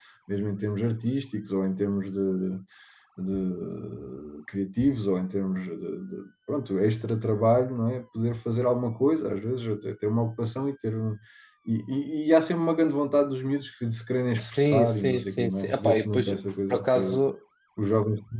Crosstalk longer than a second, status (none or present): present